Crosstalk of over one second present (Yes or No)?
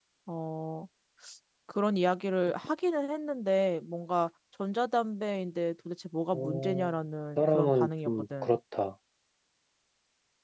Yes